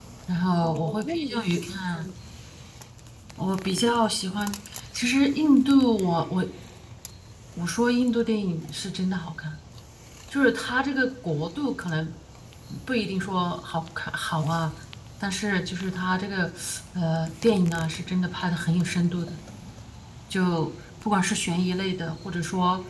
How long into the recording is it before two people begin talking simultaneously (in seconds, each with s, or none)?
0.6 s